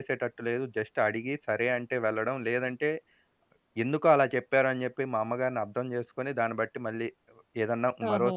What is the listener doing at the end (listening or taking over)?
taking over